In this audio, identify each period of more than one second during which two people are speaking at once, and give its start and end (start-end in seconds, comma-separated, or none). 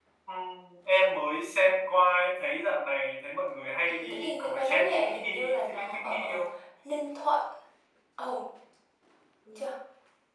3.9-6.4